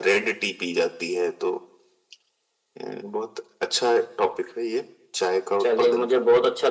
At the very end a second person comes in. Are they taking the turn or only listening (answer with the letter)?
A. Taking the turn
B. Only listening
A